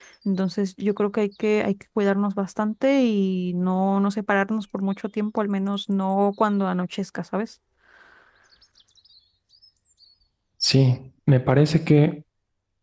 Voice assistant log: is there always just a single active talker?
Yes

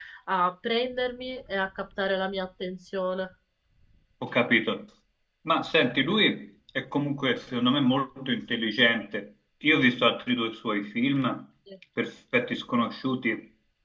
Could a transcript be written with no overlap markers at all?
Yes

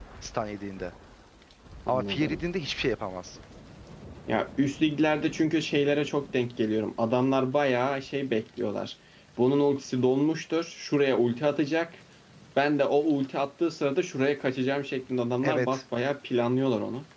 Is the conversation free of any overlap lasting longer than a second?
Yes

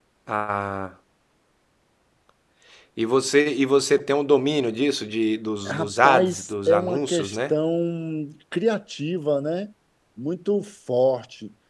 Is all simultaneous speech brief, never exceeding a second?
No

